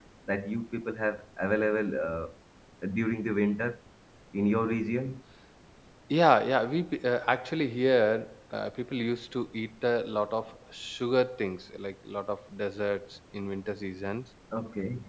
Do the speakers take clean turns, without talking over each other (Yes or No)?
Yes